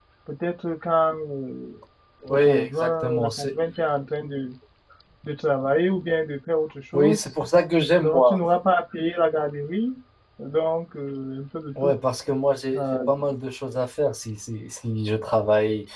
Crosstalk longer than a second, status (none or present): present